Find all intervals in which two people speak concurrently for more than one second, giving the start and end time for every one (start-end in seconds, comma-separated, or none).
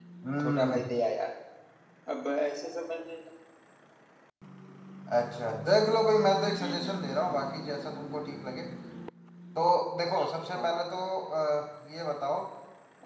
none